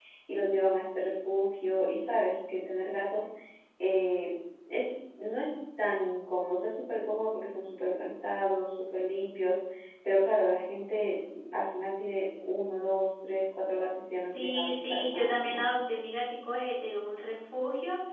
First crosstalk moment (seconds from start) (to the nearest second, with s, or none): 14 s